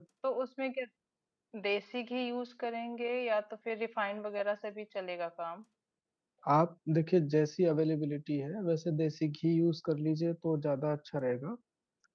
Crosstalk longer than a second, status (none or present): none